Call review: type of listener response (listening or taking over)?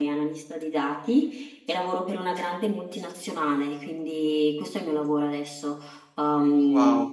taking over